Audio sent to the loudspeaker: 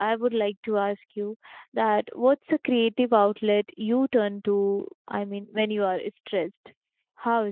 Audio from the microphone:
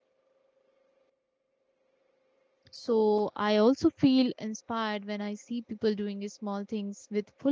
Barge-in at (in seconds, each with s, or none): 2.7 s